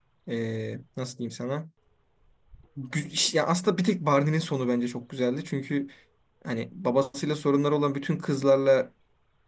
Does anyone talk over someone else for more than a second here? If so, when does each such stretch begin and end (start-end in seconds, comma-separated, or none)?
none